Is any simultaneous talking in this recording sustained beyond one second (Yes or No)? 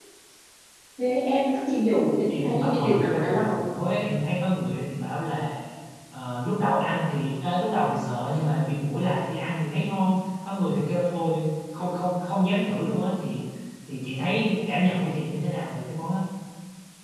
Yes